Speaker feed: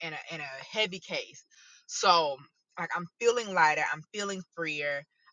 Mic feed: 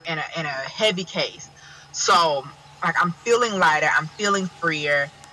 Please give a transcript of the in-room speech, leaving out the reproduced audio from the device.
none

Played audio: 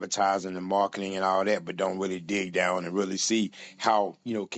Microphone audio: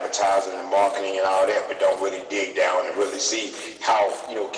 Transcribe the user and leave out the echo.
none

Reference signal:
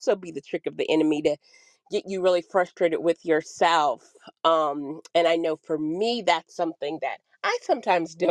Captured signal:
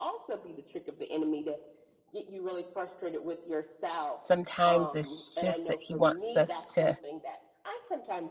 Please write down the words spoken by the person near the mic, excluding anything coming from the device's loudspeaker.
Sometimes it's just that he wants us to

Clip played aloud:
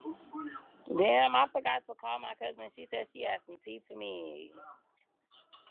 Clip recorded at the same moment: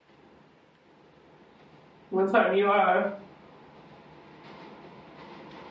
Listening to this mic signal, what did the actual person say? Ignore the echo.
What time you are?

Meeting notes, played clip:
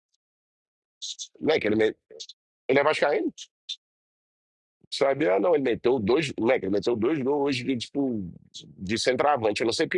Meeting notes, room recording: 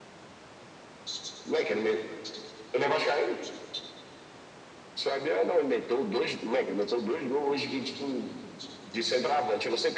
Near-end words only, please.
none

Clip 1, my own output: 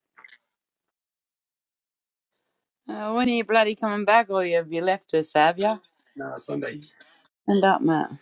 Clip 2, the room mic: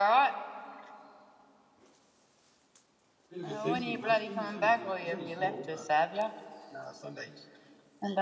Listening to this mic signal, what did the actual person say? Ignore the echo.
Bit of a sensitive munchkin. He's only he's only small, but

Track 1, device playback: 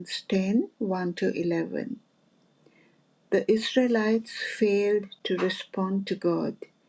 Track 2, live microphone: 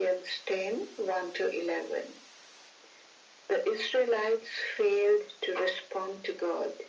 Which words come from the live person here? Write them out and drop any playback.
none

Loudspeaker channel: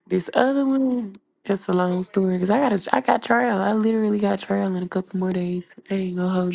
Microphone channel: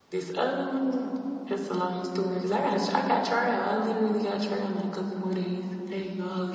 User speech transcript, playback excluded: none

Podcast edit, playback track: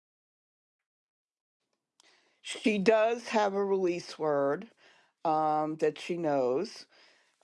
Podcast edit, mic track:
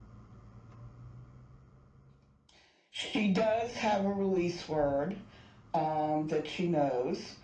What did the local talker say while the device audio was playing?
none

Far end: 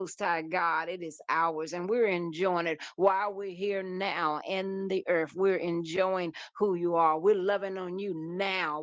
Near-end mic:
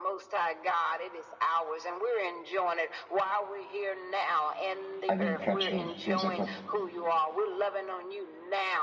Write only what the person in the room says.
I didn't catch who was it. For,

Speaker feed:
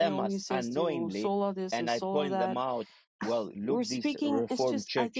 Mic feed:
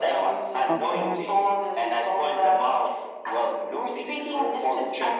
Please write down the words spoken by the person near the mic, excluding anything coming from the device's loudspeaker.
Okay.

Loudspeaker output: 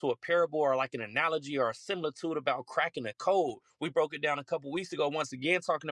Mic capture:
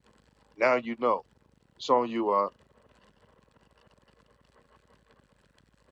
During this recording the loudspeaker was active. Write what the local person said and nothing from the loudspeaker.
now you know. It's on you. Uh,

